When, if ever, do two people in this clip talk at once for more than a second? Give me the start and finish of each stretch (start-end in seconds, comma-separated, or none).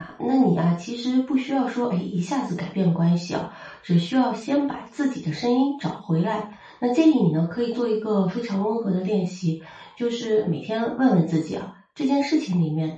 none